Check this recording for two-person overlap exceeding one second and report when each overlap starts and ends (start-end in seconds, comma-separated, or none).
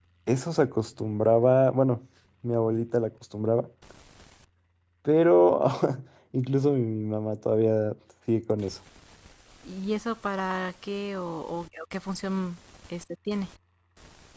none